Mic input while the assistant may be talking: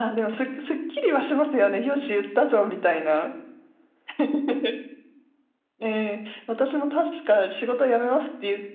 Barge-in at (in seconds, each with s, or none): none